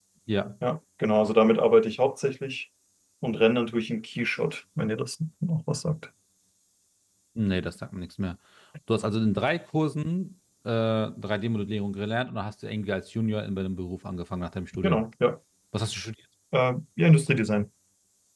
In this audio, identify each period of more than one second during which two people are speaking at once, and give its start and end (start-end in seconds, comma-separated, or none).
none